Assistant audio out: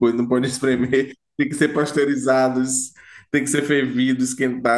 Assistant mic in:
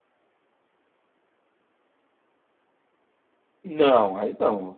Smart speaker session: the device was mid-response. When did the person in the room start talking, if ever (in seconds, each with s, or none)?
3.6 s